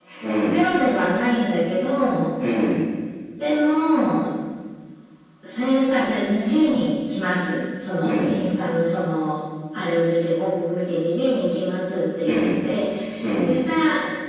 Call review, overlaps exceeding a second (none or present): none